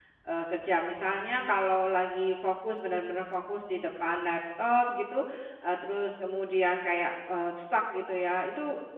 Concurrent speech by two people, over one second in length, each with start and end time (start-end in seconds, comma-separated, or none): none